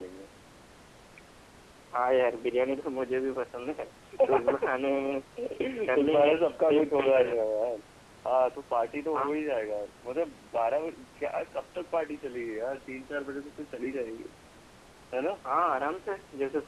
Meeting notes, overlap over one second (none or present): present